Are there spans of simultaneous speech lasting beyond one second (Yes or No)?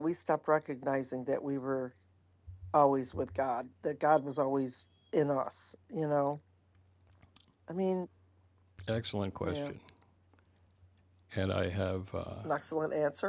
No